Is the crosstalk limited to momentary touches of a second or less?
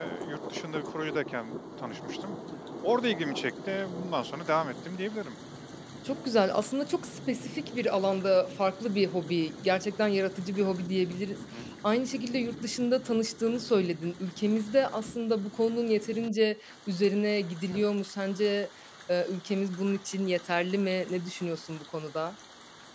Yes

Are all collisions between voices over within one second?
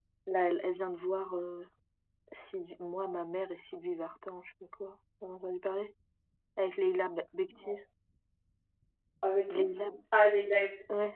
Yes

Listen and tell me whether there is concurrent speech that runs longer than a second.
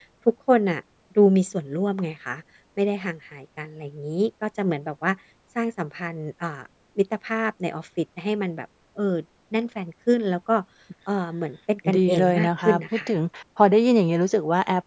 Yes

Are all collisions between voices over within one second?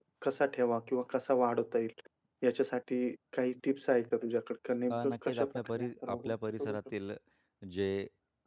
No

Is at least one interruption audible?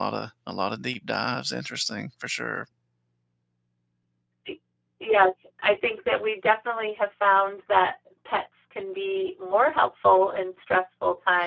No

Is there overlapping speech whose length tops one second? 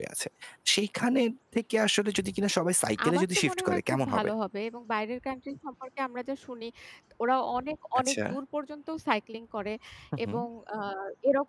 Yes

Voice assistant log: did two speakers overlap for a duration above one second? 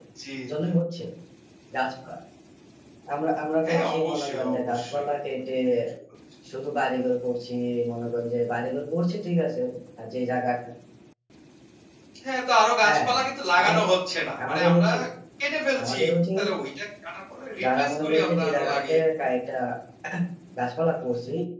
Yes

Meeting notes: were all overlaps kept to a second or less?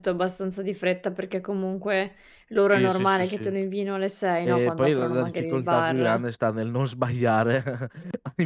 No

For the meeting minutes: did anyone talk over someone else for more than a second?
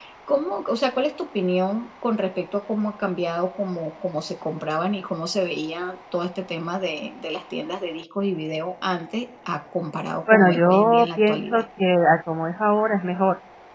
Yes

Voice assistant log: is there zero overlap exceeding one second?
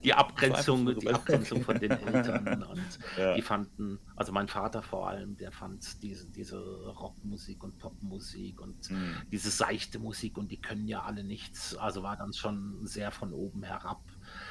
No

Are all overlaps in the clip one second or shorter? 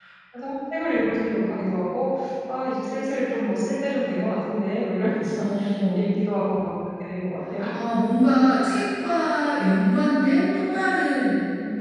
Yes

